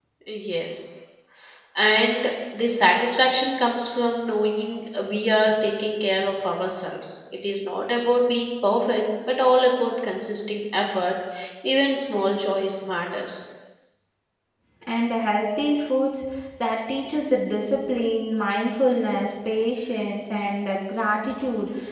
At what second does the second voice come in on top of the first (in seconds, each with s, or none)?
none